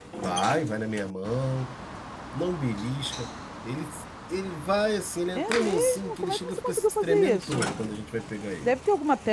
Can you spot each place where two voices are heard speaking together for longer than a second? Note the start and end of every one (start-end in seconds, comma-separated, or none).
5.3-7.7